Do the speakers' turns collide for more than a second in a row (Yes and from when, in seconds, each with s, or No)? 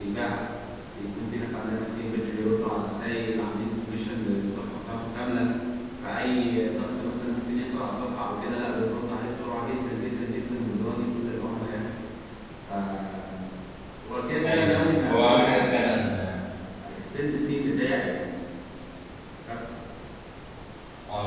Yes, from 14.4 s